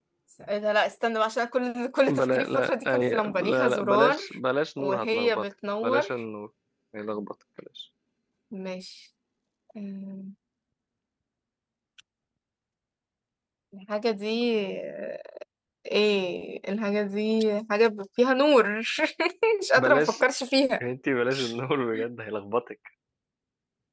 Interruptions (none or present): present